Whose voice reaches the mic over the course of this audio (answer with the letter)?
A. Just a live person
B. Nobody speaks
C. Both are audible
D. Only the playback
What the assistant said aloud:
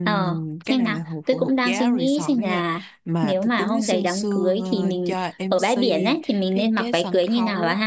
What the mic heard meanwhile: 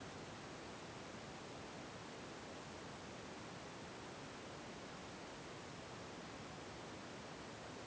B